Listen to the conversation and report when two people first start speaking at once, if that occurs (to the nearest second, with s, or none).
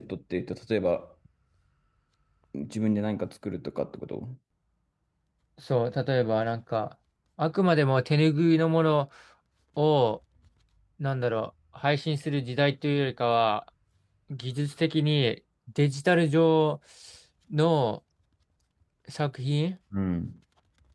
none